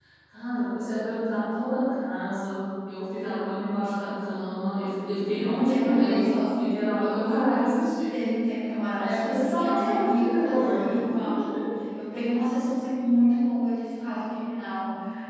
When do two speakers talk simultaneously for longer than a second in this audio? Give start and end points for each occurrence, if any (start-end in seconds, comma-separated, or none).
5.5-6.8, 9.0-10.8